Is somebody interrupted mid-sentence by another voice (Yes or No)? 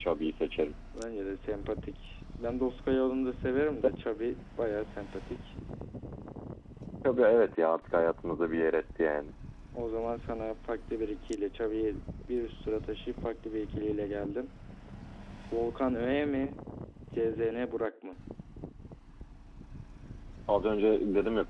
No